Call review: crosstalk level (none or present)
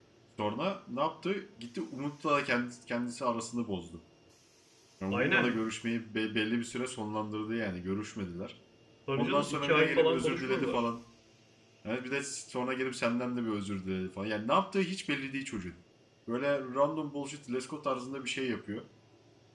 present